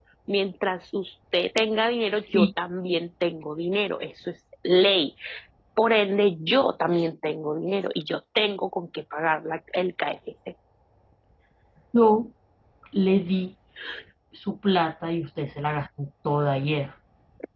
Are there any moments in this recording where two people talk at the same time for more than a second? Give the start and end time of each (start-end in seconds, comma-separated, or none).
none